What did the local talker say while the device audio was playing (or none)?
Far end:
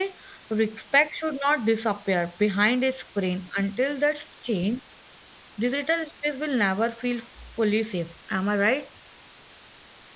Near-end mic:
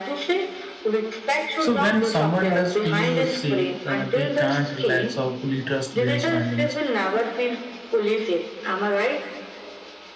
So when someone does feel safe, uh, they can't relax or fully trust their surroundings.